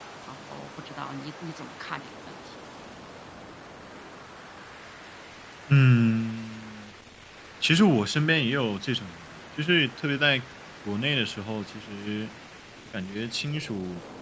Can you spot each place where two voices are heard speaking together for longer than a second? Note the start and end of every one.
none

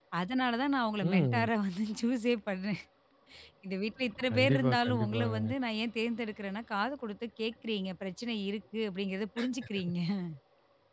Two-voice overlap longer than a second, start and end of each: 4.3-5.5

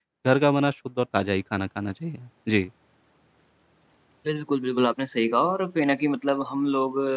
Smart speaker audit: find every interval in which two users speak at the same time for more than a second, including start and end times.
none

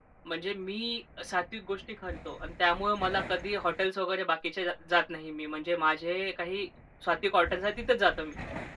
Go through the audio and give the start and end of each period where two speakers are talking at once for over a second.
none

